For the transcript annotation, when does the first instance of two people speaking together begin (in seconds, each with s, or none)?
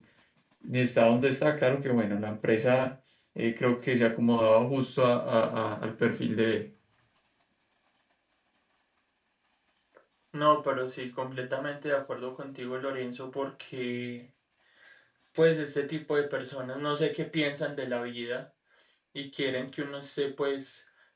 none